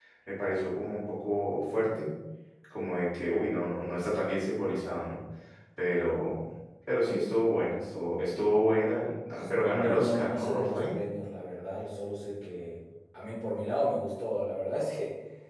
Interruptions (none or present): present